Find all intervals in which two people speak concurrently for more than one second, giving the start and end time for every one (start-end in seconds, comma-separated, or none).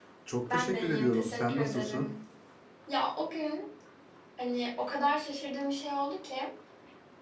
0.5-2.0